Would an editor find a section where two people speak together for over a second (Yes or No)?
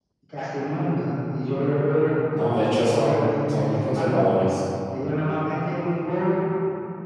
Yes